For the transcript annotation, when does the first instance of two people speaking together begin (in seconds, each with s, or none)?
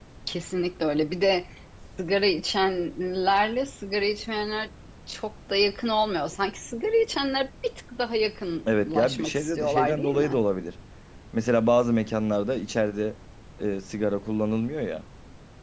8.7 s